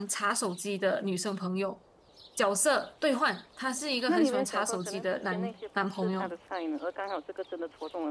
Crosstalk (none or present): present